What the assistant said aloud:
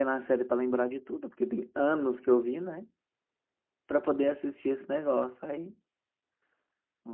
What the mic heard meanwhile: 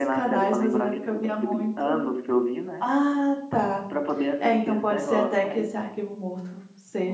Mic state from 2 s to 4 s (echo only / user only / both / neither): both